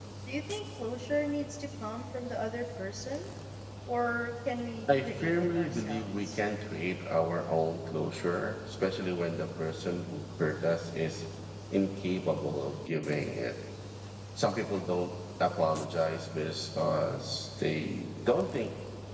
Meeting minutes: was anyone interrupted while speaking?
Yes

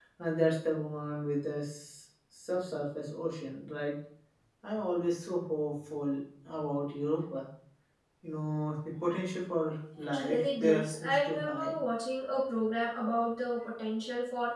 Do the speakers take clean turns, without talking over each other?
No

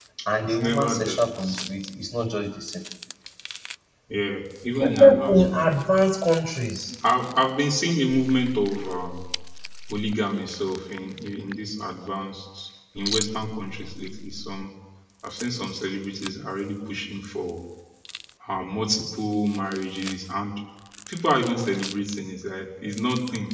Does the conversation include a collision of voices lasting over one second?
Yes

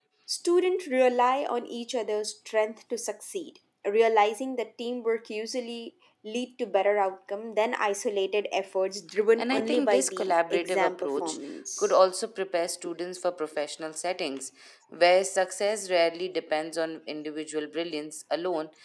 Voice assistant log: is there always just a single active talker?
No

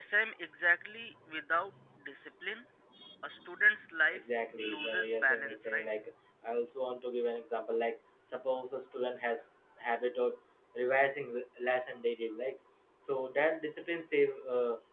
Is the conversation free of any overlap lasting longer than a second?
No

